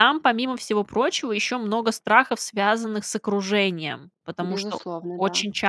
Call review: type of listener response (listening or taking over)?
listening